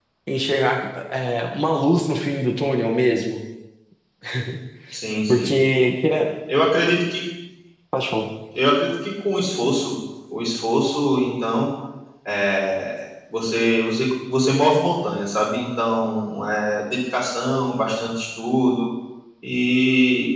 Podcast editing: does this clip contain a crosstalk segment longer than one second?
No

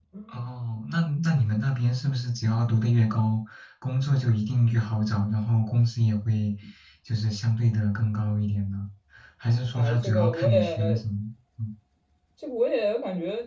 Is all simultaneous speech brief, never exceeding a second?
No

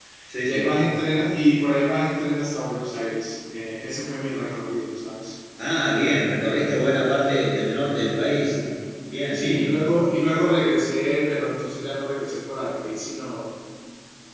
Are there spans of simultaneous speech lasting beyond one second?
No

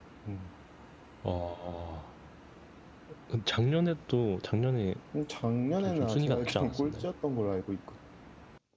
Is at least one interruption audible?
Yes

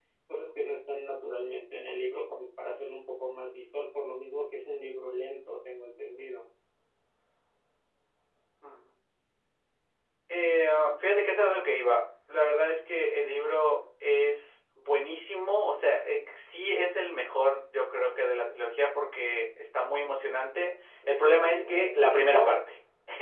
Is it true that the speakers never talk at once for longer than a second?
No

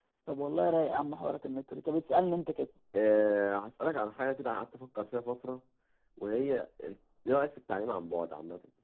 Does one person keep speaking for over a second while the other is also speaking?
No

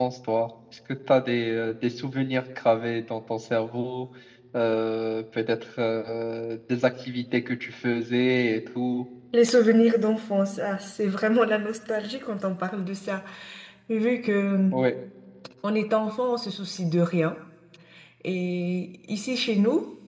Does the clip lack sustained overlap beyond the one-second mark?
Yes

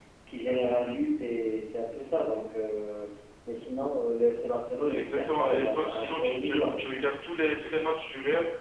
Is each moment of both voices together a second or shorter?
No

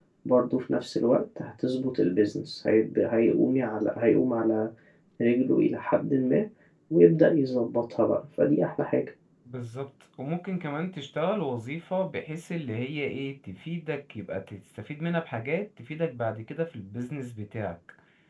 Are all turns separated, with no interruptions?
Yes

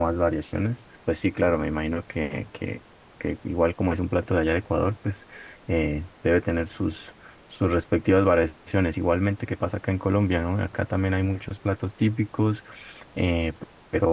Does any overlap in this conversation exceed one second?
No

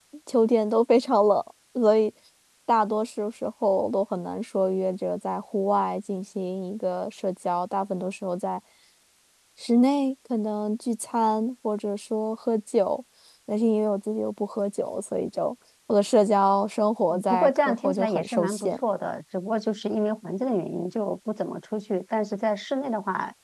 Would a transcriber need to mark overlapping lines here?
Yes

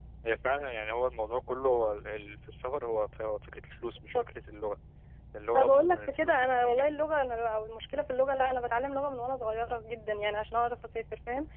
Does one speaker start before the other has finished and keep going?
Yes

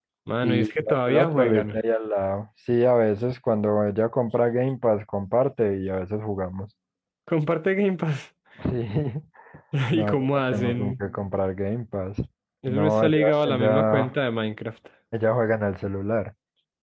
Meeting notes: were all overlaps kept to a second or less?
No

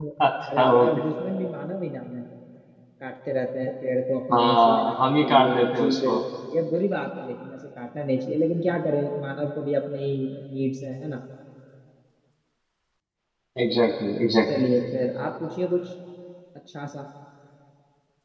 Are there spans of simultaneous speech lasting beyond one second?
Yes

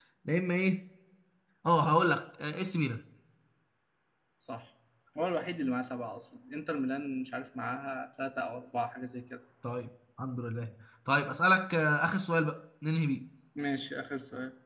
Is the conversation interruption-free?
Yes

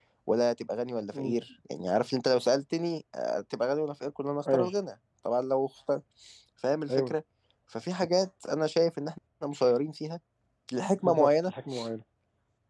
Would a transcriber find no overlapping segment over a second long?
Yes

